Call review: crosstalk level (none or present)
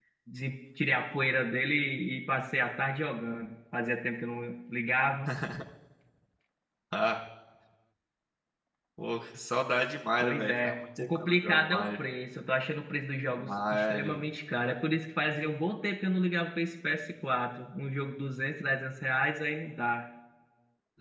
present